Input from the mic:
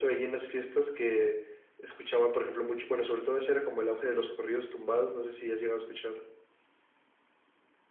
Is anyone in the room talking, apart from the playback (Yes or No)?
No